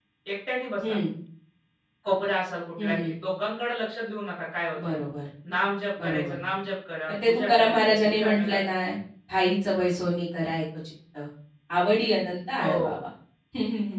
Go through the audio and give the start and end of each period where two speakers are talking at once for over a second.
7.1-8.6

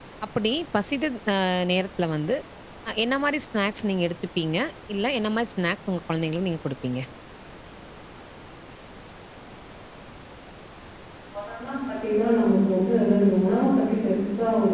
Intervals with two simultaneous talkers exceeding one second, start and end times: none

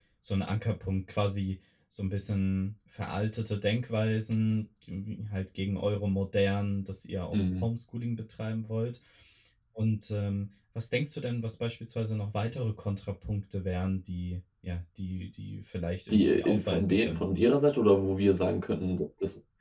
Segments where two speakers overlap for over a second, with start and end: 16.1-17.5

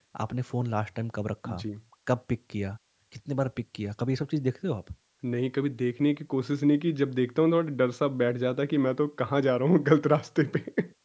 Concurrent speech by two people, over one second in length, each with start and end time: none

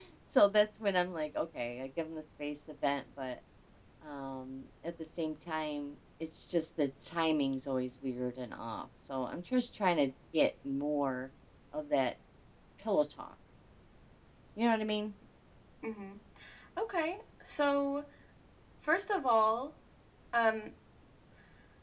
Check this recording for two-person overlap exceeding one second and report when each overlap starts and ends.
none

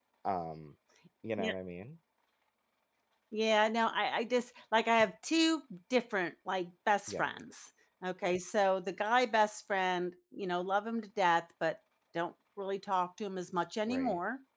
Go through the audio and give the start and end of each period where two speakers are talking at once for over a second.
none

